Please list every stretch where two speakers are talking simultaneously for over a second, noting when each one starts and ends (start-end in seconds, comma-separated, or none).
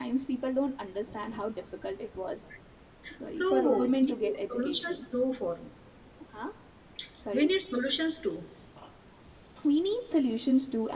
3.3-5.0